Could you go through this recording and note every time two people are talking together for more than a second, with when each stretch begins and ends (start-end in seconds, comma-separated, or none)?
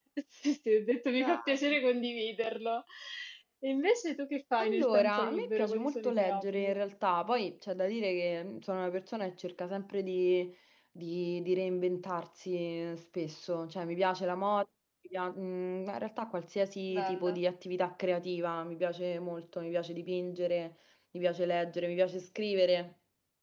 4.6-6.7